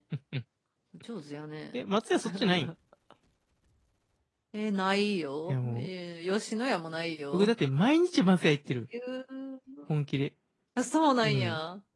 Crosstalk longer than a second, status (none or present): none